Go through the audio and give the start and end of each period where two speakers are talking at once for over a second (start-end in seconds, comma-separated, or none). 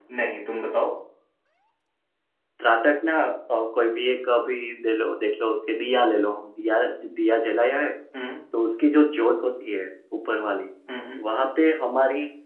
none